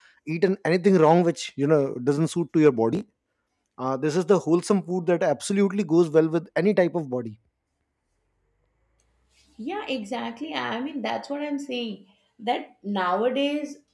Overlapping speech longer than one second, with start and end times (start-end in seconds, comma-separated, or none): none